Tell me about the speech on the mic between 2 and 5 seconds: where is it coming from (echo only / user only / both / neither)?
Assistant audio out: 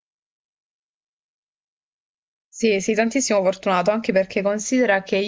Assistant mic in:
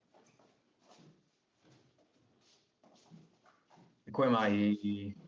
user only